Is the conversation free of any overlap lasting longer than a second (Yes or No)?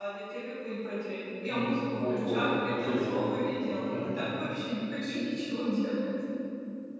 No